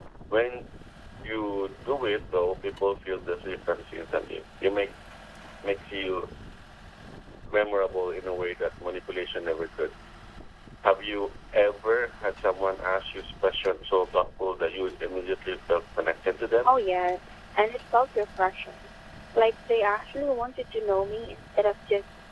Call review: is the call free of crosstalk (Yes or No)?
Yes